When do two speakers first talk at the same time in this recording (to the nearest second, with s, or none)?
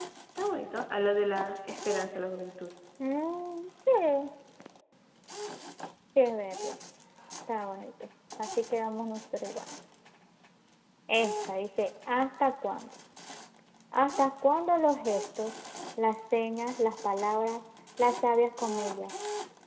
none